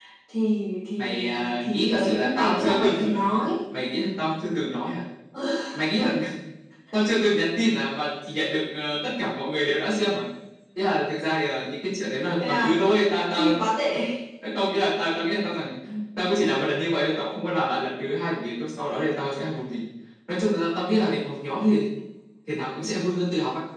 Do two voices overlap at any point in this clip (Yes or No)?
Yes